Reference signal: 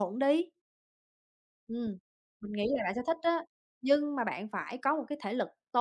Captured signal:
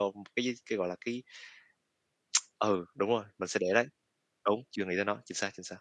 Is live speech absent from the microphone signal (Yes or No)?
No